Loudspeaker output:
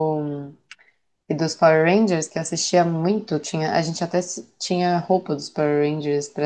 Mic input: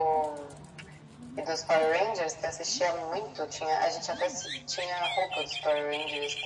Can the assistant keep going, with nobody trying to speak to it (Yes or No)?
Yes